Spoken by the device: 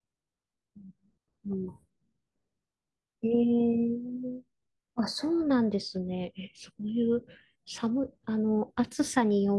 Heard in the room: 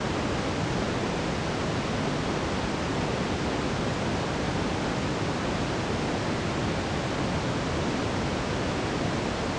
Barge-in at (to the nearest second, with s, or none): none